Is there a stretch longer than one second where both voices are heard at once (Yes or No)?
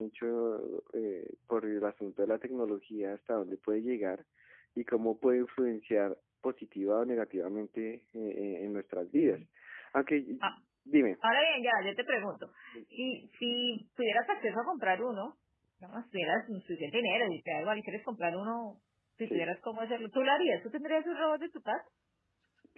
No